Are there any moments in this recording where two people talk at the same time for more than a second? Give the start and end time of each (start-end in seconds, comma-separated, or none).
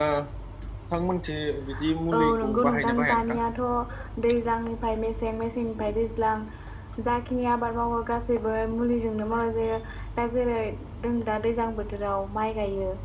2.2-3.4